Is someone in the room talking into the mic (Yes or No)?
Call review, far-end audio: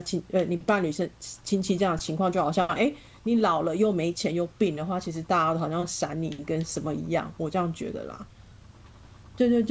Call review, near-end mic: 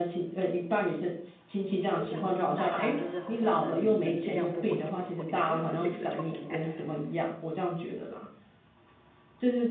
Yes